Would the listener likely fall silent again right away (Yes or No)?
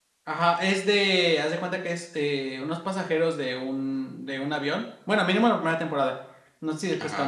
Yes